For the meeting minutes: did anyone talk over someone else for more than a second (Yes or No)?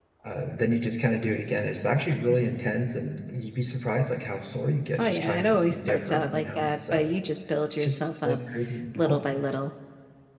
Yes